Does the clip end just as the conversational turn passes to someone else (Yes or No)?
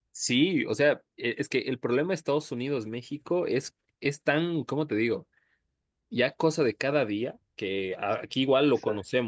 No